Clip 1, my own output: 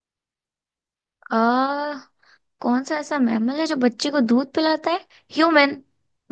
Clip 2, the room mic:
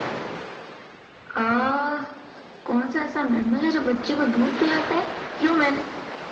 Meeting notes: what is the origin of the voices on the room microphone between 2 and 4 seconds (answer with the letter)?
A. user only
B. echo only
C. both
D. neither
B